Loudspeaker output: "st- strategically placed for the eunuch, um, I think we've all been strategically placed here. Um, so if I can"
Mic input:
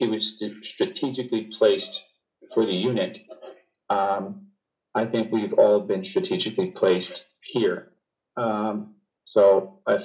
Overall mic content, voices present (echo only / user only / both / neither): echo only